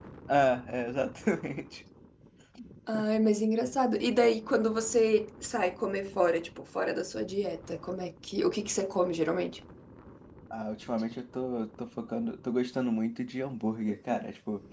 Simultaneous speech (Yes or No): No